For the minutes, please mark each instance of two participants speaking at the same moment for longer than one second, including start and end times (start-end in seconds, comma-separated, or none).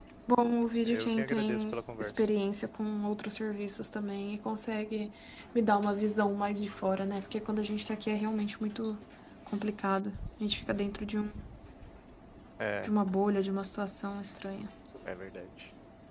0.8-2.1